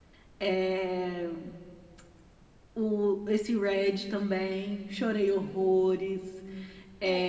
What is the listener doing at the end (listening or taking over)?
taking over